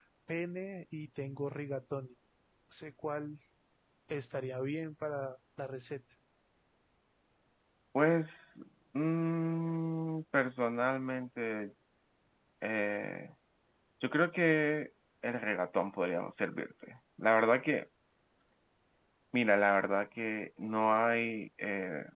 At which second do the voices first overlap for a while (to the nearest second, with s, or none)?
none